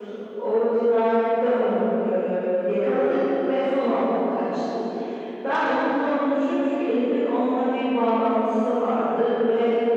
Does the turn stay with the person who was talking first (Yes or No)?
Yes